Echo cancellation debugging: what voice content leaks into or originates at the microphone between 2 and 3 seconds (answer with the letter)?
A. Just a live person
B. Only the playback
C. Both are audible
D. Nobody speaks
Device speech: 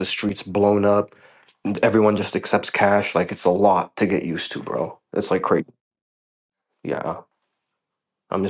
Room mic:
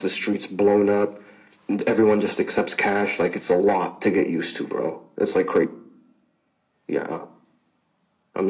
B